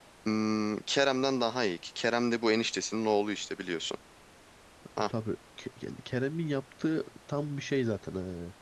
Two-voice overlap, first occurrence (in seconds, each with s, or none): none